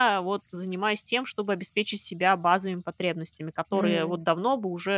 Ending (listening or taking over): listening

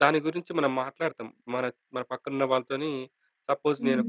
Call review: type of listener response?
listening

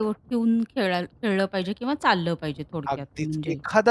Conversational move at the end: taking over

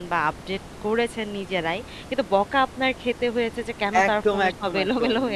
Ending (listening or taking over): taking over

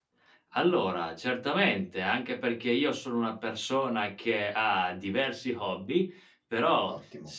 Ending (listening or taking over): listening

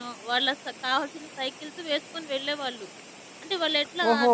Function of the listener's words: taking over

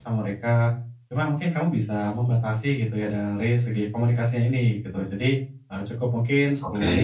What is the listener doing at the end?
listening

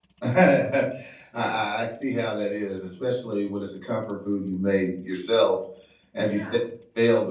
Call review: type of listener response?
listening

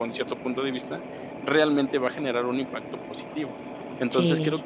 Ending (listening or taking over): listening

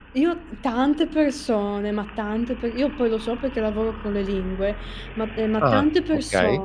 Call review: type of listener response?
listening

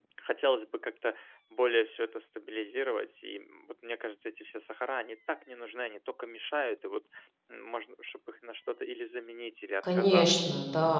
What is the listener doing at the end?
taking over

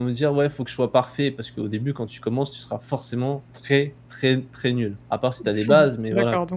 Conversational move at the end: taking over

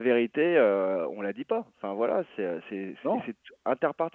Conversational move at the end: listening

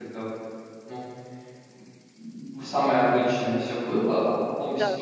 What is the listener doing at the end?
listening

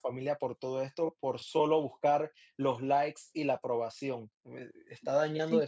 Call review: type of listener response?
listening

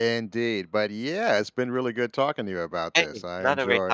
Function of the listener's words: taking over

